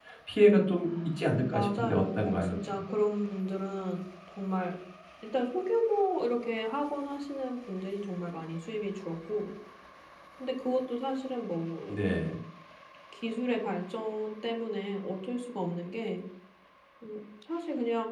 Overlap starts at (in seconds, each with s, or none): 1.5 s